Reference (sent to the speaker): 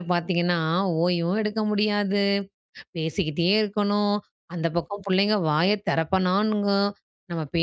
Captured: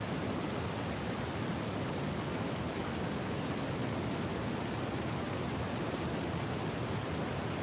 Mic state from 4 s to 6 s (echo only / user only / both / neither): neither